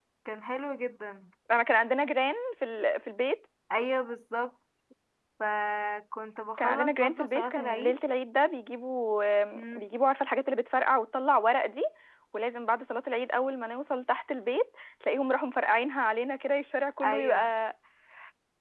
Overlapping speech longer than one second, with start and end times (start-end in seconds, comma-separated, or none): 6.6-8.0